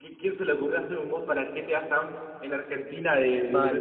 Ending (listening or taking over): taking over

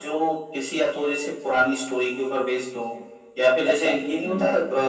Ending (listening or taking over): listening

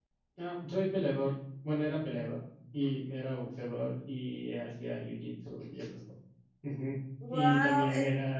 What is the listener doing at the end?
listening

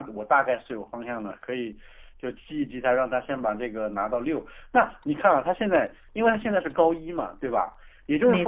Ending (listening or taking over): listening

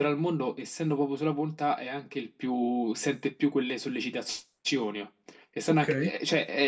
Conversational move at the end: listening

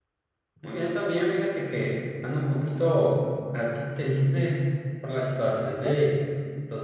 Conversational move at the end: listening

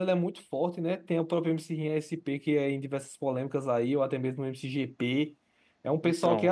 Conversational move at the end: listening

